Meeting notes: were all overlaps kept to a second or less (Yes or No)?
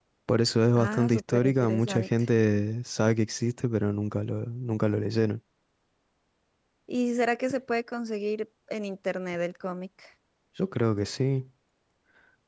No